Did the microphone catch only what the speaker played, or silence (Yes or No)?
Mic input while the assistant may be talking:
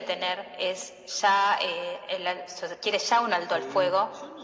No